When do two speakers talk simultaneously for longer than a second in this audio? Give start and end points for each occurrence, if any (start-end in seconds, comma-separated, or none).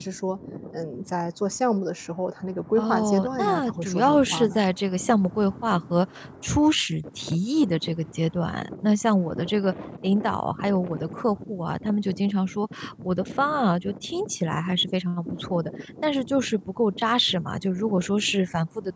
2.8-4.6